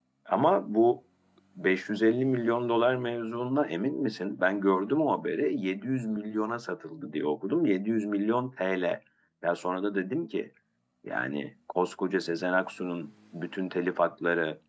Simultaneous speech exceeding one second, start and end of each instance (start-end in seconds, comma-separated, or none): none